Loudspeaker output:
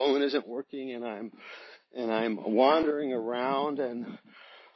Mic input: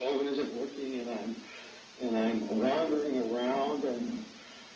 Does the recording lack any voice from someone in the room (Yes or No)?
Yes